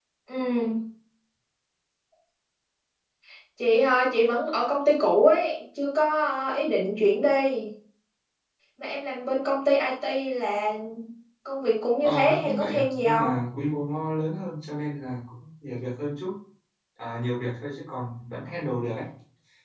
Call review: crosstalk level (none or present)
present